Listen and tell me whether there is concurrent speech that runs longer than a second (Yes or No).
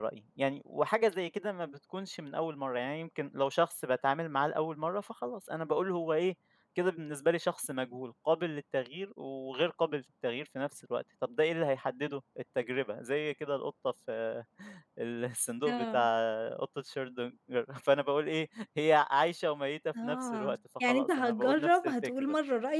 Yes